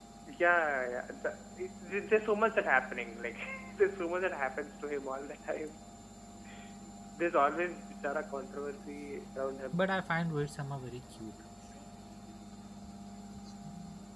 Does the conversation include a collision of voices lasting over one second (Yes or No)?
No